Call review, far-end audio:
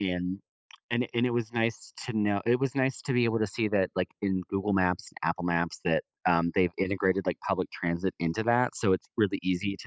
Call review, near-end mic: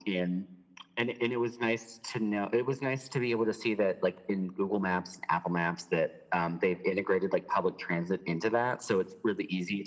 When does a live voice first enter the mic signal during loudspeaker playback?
none

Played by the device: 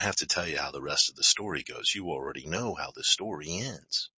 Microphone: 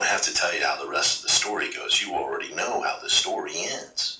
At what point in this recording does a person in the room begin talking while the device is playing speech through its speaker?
none

